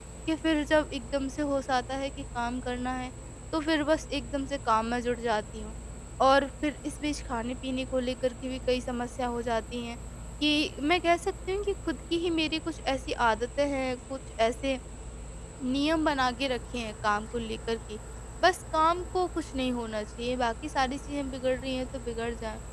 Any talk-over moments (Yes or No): No